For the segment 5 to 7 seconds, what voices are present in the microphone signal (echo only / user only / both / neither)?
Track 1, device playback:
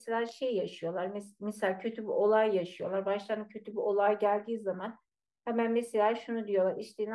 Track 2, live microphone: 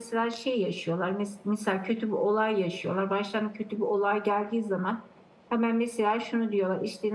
echo only